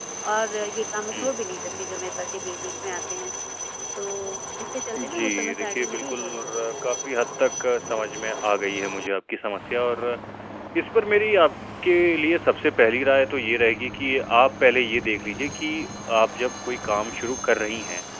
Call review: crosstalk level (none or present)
present